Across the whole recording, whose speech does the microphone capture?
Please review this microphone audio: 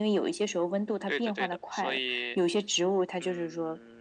echo only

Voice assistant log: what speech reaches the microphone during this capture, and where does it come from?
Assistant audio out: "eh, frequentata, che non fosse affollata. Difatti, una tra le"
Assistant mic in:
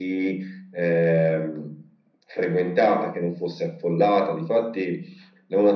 echo only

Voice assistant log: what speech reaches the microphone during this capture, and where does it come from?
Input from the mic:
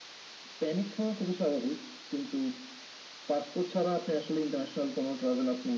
echo only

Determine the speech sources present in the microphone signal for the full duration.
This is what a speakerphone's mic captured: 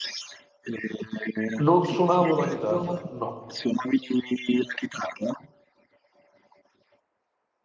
both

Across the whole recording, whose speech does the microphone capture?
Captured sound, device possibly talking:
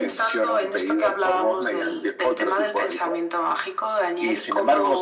echo only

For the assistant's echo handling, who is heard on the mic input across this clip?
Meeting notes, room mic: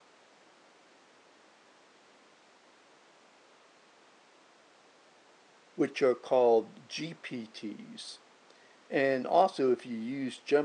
user only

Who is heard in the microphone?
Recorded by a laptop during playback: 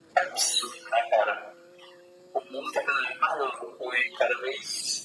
echo only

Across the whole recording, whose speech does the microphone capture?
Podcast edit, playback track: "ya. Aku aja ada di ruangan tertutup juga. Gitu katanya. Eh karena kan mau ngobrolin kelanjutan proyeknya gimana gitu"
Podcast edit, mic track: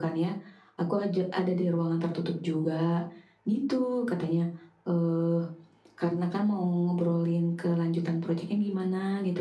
echo only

